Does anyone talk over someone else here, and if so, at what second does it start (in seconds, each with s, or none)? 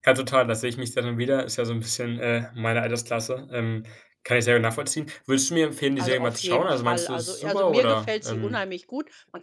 6.0 s